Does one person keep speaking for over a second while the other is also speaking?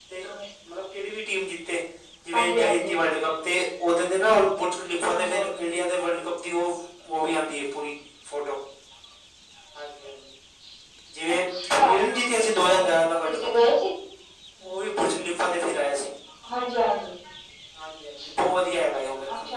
Yes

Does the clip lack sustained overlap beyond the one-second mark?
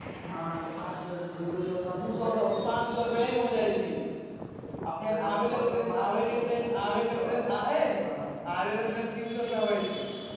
No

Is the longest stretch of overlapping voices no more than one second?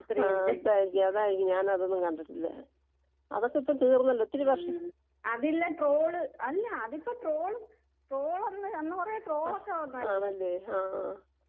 Yes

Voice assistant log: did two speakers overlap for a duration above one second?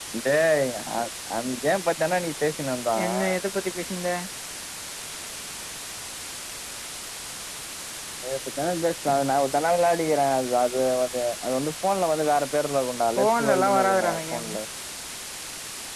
Yes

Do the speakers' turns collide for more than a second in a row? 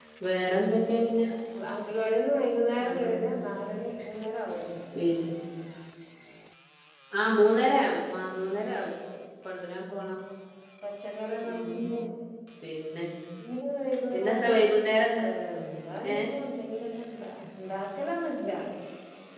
No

